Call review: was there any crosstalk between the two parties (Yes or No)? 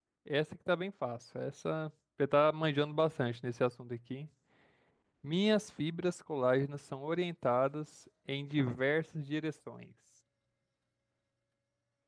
No